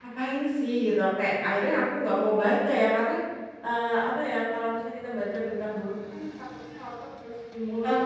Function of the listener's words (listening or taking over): taking over